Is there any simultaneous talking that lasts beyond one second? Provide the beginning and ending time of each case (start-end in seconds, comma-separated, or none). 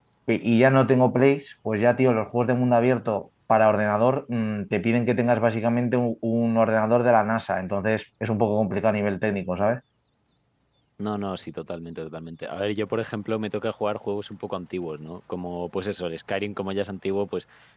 none